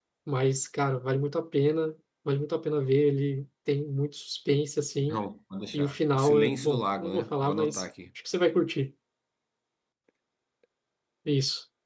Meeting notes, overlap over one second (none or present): present